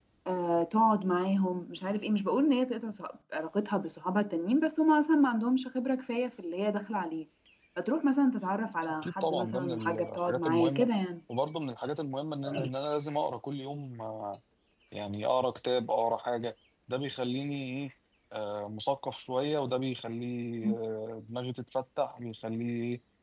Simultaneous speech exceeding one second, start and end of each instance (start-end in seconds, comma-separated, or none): 9.0-10.9